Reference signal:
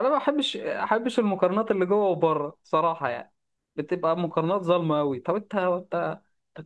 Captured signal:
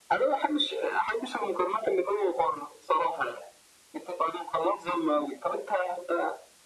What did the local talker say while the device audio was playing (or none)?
none